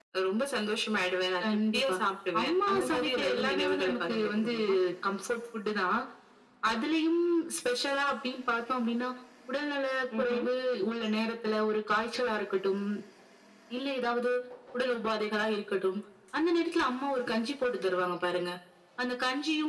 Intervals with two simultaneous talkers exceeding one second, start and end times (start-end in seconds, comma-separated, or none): 2.4-4.5